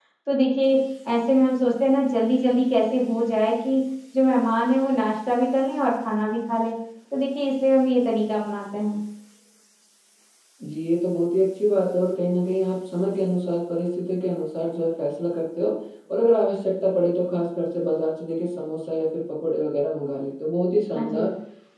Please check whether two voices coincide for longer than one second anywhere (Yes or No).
No